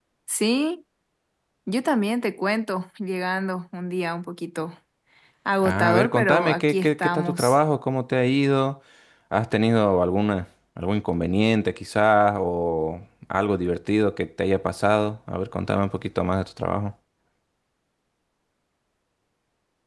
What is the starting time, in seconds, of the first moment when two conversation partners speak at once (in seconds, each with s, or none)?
5.6 s